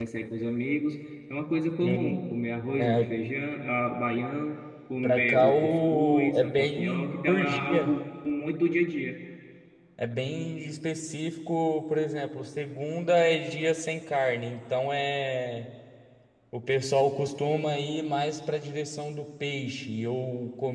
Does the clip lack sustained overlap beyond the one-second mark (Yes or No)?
No